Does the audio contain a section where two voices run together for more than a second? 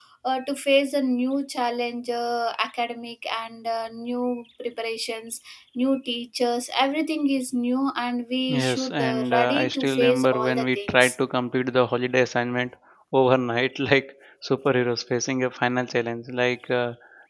Yes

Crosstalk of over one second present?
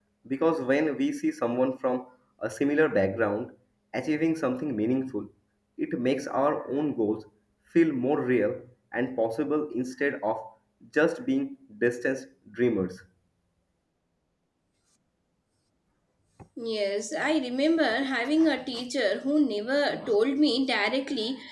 No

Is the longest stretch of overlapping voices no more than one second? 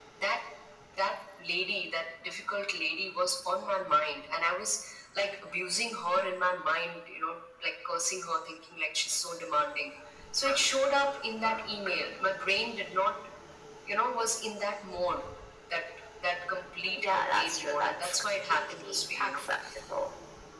No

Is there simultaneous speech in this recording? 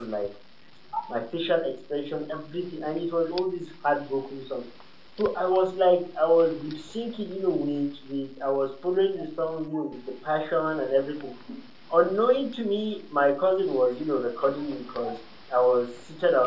No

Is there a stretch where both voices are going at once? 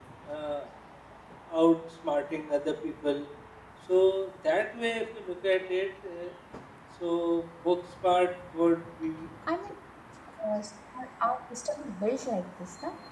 No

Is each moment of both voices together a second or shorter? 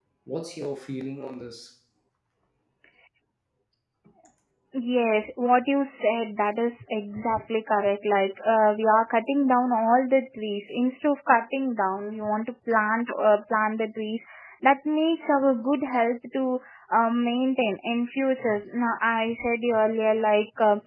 Yes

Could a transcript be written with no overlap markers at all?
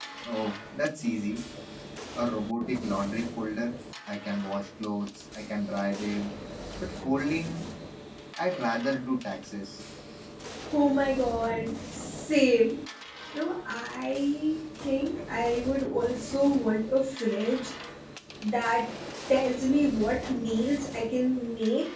Yes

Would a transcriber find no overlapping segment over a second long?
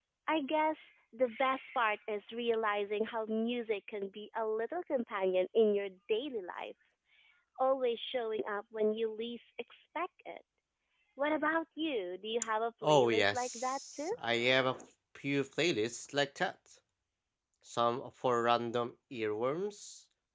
No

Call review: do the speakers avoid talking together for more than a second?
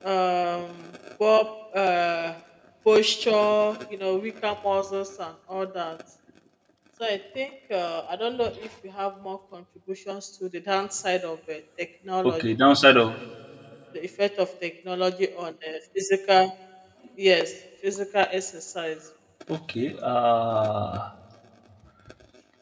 Yes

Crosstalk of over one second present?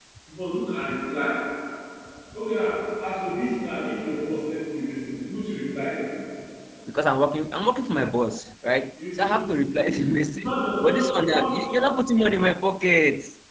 Yes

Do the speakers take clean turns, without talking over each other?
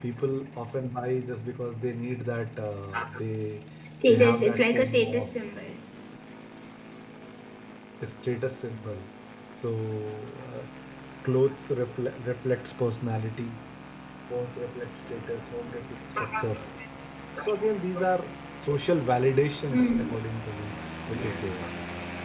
No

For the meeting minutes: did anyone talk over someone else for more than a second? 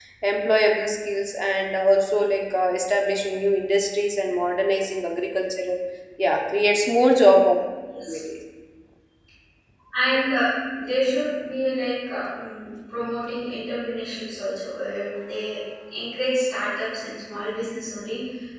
No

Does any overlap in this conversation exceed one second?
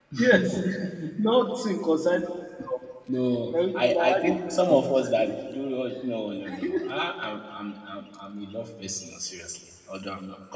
Yes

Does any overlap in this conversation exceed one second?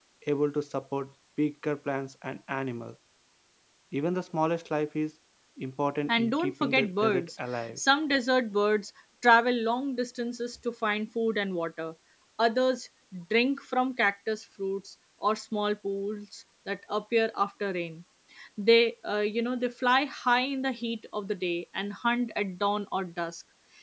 Yes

